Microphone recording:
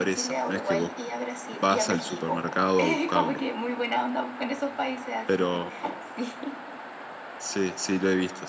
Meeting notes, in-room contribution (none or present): present